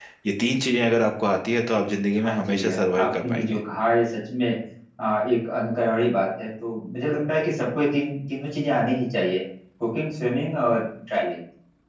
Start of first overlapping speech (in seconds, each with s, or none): 2.2 s